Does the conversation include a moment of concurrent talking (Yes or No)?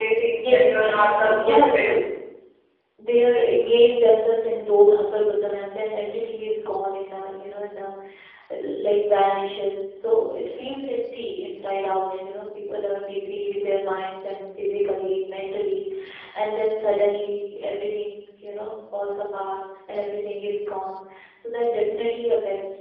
Yes